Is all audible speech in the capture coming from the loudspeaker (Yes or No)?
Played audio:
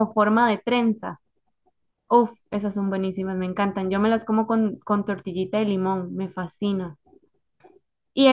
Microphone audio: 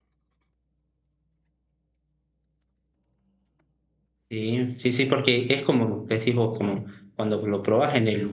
No